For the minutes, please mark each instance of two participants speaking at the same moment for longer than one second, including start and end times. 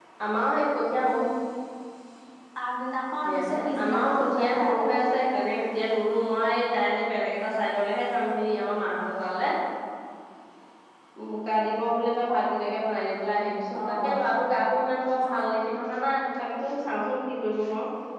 3.2-5.0

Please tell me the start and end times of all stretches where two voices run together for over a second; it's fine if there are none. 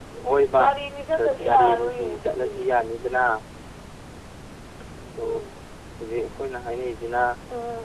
1.2-2.5

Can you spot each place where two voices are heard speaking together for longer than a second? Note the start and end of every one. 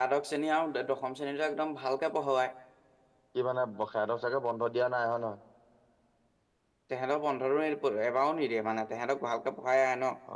none

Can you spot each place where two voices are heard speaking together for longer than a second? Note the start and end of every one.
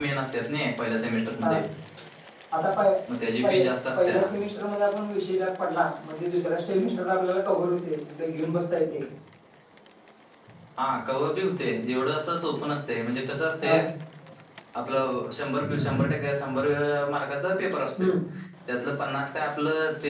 none

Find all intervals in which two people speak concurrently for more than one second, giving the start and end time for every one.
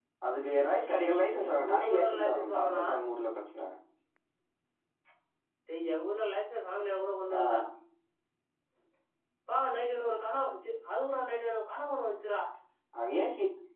1.5-2.8

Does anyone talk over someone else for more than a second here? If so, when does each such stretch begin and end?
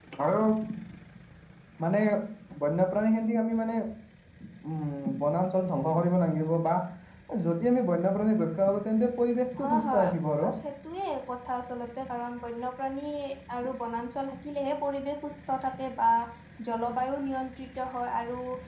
none

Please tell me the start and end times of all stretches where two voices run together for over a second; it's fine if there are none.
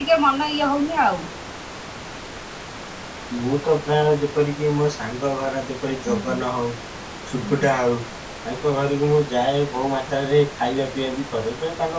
none

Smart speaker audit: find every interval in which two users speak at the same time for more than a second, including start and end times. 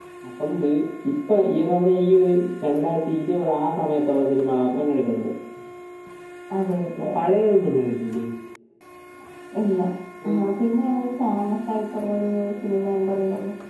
none

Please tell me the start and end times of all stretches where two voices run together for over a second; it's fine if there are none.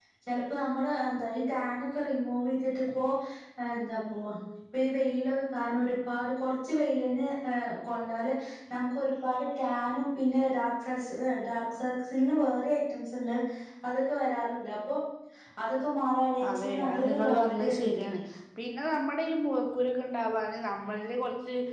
16.5-18.0

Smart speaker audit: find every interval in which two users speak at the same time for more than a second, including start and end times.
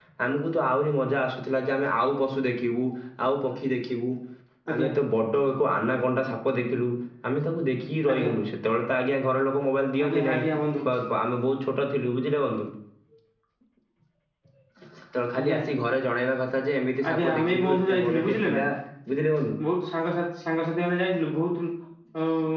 17.1-18.6

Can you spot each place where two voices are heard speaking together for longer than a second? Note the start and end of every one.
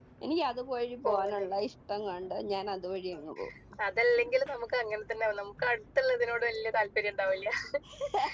none

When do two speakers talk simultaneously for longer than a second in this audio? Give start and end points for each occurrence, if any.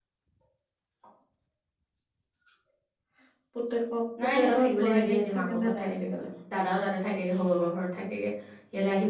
4.2-6.2

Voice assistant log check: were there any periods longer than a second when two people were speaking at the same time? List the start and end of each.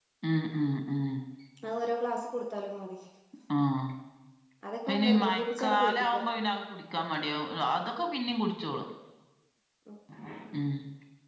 4.9-6.2

